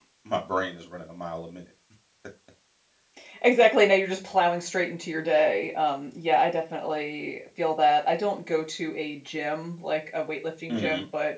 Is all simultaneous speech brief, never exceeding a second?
Yes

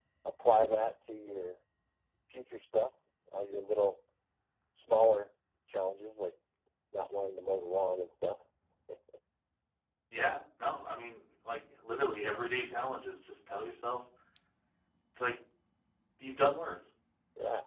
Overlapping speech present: No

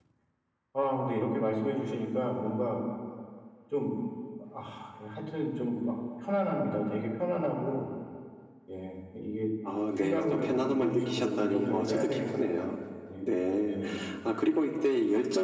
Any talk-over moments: Yes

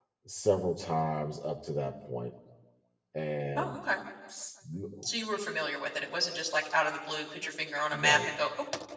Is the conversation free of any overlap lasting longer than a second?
Yes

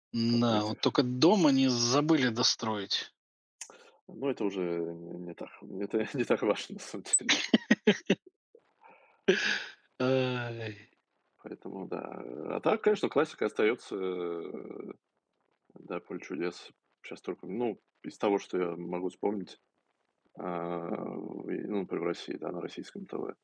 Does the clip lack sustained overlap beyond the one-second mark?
Yes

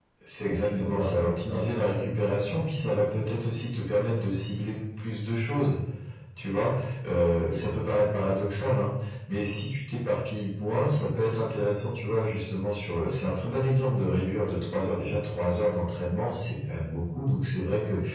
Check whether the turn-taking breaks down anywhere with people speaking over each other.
Yes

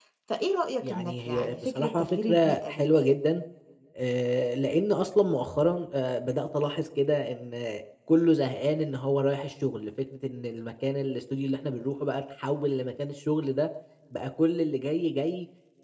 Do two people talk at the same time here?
Yes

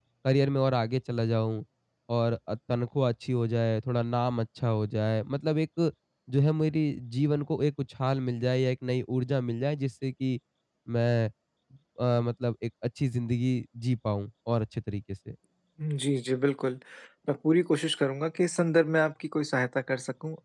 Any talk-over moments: No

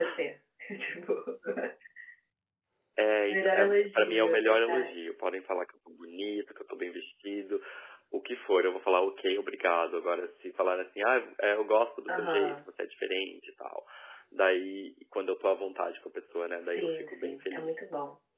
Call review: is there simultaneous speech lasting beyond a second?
Yes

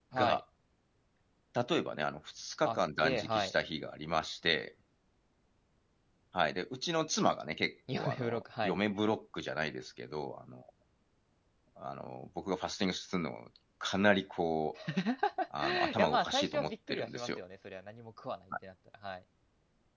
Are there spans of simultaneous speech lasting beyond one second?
Yes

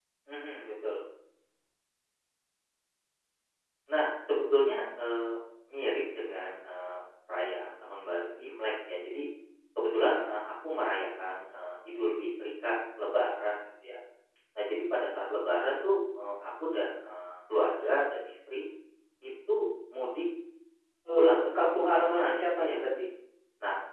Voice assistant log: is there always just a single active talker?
No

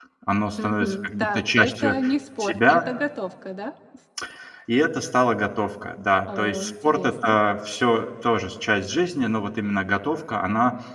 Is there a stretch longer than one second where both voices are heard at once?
Yes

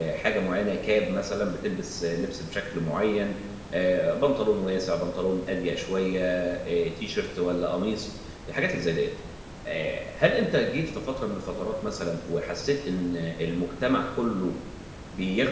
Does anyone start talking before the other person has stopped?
No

